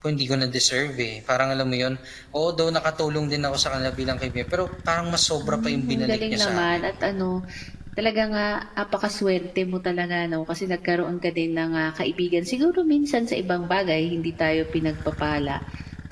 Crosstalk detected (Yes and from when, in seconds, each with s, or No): Yes, from 5.4 s